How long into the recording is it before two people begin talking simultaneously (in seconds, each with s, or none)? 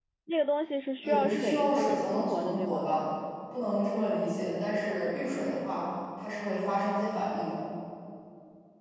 1.0 s